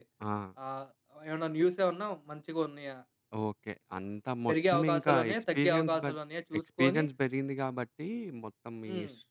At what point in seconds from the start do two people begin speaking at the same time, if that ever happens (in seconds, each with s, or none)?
4.5 s